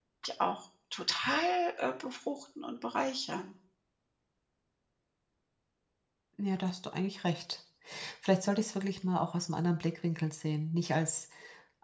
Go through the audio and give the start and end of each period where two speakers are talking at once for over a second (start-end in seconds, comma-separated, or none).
none